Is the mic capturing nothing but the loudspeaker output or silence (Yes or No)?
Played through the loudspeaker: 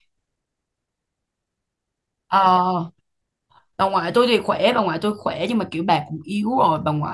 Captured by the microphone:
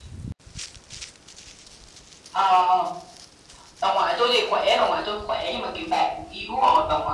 Yes